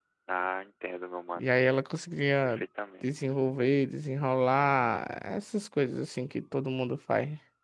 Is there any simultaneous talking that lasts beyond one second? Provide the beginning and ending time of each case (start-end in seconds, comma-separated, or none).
none